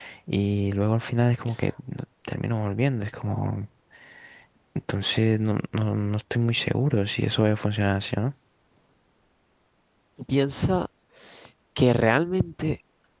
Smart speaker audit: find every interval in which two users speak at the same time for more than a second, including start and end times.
none

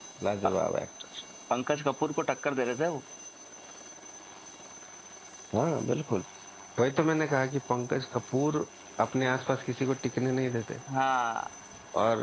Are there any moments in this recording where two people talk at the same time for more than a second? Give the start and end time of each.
none

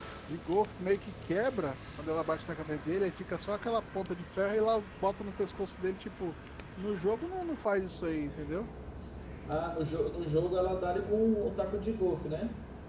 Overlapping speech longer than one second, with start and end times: none

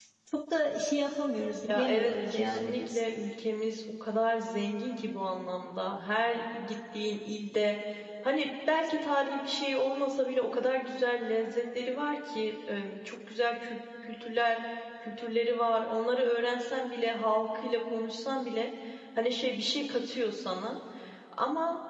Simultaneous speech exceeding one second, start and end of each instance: 1.7-3.0

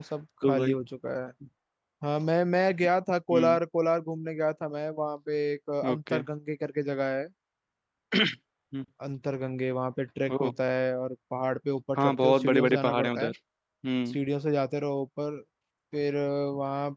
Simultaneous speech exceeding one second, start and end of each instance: 12.0-13.3

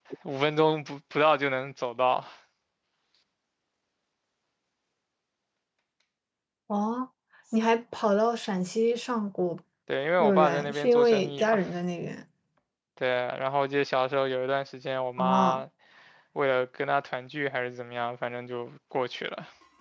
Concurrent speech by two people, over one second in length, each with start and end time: 10.2-11.6

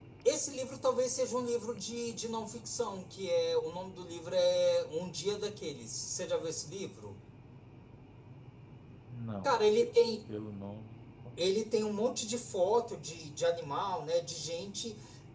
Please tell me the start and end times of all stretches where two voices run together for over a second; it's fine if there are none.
none

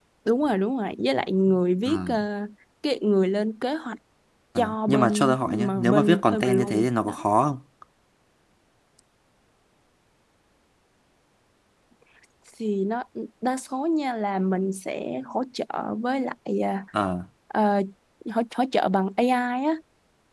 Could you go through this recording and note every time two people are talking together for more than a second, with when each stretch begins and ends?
4.6-7.2

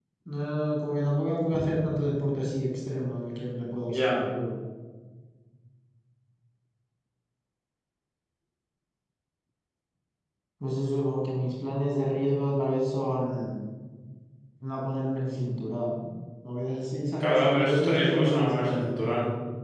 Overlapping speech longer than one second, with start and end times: 17.2-18.8

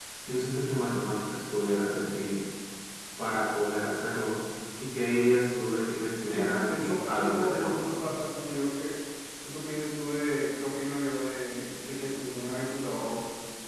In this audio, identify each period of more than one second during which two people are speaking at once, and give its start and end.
6.2-8.1

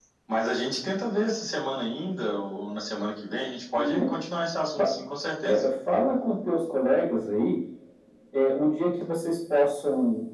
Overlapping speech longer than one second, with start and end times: none

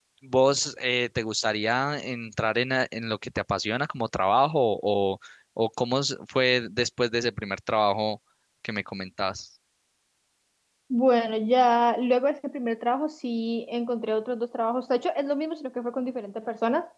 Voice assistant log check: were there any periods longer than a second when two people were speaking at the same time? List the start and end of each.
none

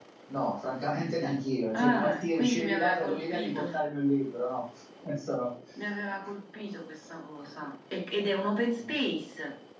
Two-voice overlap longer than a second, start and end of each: 1.7-3.8

